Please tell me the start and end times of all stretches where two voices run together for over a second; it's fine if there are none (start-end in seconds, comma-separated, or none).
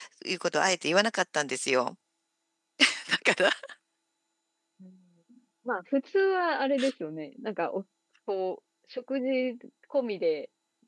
none